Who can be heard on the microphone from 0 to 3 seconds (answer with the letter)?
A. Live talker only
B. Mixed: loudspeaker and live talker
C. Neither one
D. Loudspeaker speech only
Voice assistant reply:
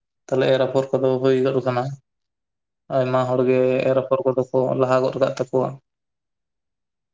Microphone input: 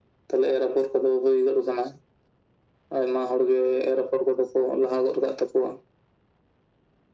D